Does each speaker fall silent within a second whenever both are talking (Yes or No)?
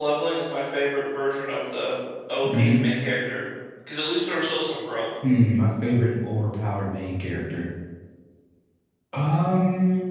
Yes